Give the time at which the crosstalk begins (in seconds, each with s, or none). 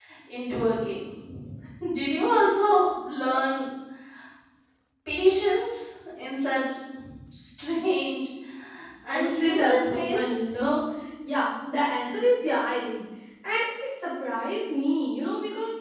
9.1 s